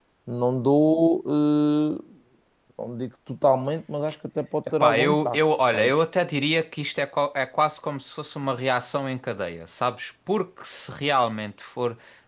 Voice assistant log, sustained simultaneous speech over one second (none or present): present